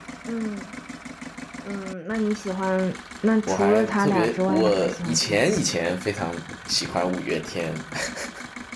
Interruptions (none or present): present